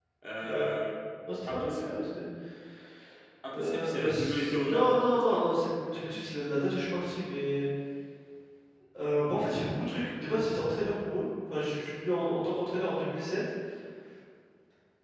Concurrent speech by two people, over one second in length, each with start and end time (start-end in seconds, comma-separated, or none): 3.5-5.4